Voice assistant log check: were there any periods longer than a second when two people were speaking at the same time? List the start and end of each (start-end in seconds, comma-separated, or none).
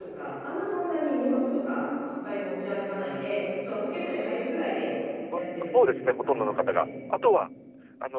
5.3-6.8